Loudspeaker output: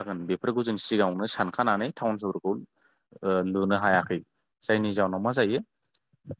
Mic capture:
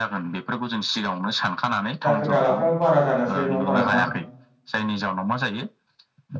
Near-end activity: present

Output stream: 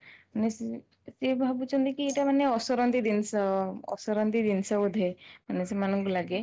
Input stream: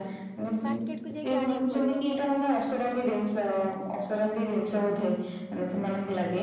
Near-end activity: present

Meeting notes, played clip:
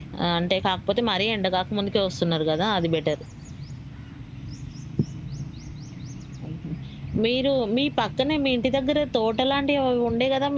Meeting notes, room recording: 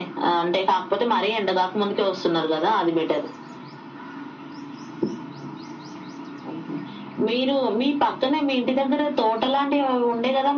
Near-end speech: none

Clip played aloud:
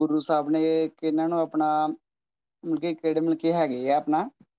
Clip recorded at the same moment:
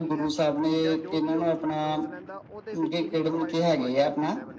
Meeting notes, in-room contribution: present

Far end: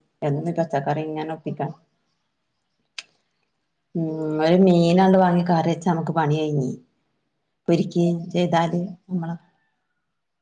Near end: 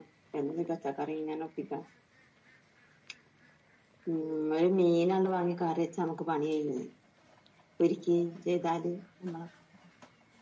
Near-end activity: none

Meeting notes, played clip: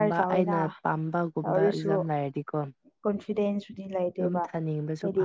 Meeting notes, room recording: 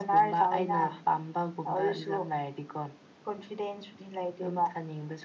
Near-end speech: none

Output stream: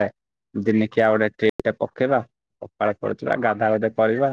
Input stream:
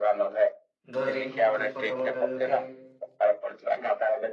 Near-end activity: present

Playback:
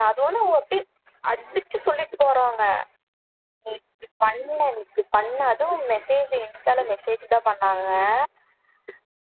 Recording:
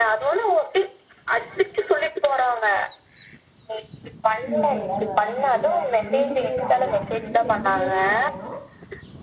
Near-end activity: present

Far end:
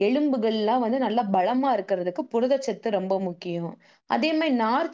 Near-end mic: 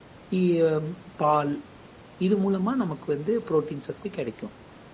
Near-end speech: present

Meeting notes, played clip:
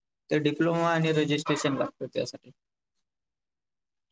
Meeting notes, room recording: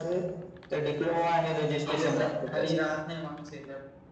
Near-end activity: present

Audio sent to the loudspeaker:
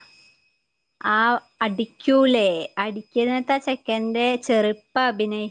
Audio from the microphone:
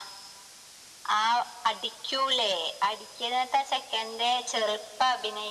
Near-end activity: none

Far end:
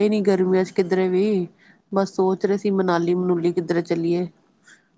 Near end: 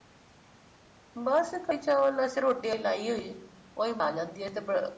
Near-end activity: present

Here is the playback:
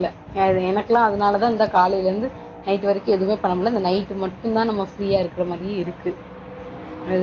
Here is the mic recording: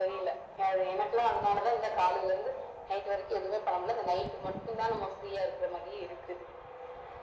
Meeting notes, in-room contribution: none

